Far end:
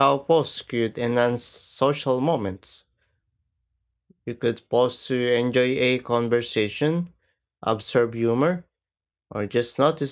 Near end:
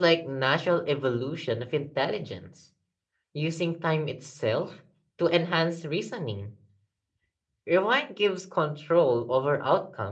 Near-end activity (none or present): present